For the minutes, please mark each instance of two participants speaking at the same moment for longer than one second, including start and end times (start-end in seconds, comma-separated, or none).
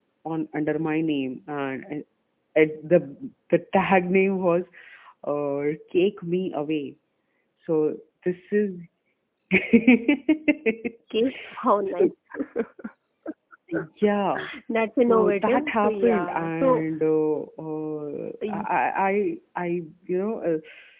15.0-16.8